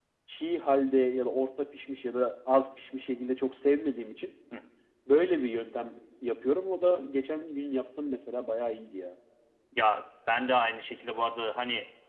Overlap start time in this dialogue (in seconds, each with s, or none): none